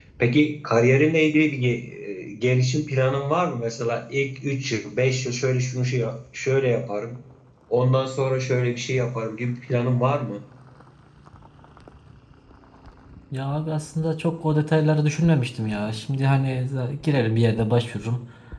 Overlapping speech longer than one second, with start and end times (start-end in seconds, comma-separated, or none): none